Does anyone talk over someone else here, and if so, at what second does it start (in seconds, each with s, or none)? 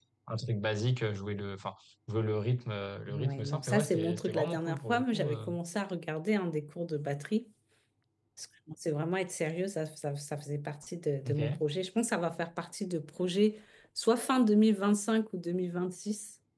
3.1 s